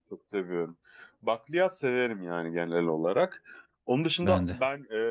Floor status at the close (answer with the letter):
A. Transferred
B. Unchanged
B